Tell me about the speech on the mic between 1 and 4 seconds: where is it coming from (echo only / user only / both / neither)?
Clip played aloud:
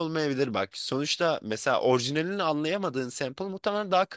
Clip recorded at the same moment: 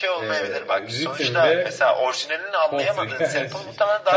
both